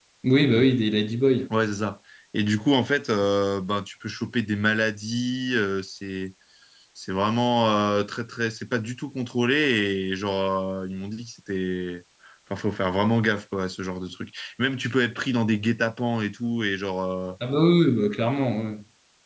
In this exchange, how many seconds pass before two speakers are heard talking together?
none

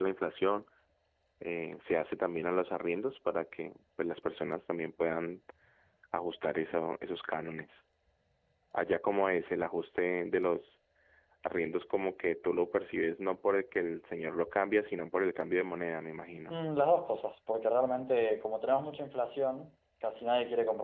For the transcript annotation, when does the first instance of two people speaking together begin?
none

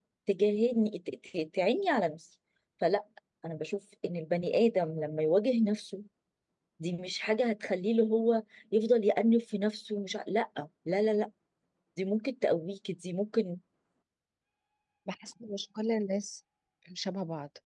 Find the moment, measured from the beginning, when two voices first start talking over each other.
none

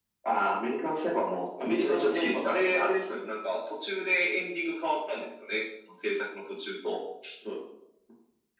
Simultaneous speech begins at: 1.6 s

